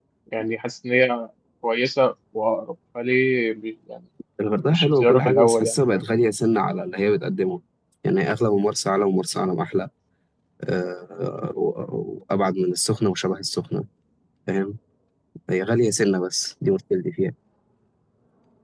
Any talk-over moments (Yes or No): Yes